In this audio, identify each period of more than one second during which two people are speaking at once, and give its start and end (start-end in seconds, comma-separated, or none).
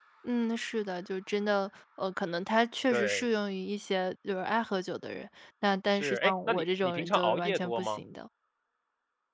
5.9-8.0